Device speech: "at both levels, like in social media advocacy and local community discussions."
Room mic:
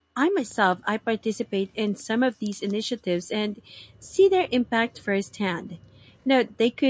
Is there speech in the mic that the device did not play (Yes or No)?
Yes